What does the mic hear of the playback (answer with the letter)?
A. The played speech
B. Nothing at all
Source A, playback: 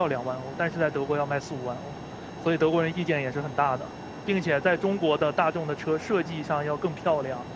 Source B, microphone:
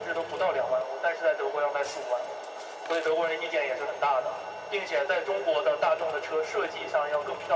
A